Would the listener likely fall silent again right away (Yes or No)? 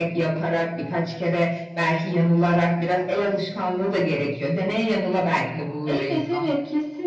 No